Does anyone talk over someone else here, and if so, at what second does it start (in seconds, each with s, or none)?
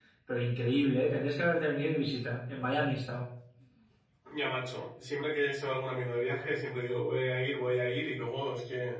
none